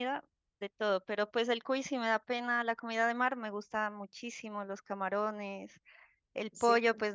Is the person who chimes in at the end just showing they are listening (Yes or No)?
Yes